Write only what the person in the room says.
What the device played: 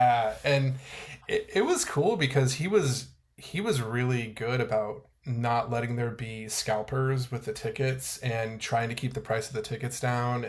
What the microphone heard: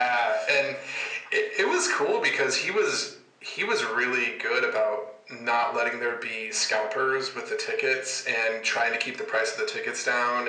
none

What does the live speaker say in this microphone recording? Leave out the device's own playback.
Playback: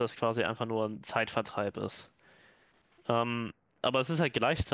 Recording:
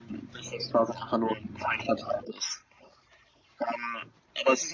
none

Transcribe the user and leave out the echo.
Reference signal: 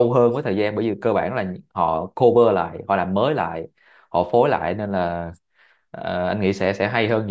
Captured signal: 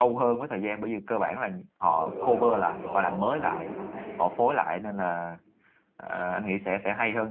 những người gọi là có trình độ họ viết rất là hay

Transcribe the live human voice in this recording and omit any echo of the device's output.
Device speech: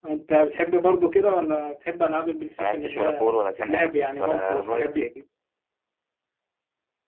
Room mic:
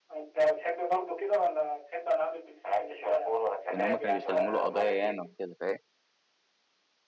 وان هم كانوا بيسلموا له قضايا ياما وكده فاهم

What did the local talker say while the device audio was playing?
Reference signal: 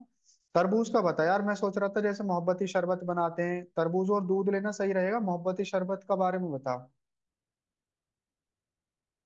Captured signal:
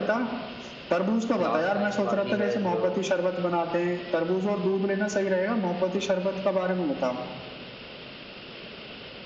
लास्ट टाइम वाली है जो

